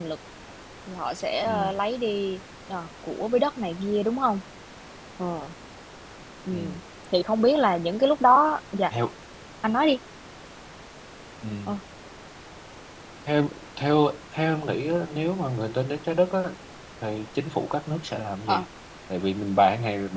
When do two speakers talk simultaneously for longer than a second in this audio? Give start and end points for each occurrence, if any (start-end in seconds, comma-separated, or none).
none